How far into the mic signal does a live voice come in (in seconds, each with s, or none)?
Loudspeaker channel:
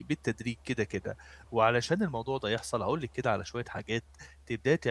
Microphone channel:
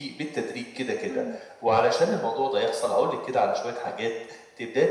1.1 s